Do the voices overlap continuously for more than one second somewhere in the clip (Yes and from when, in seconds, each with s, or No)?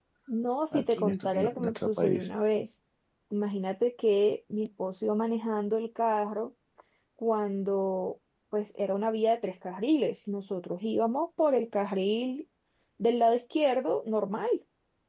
Yes, from 0.7 s